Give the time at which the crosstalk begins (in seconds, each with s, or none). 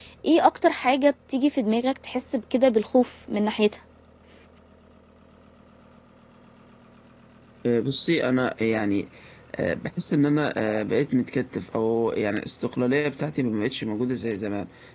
none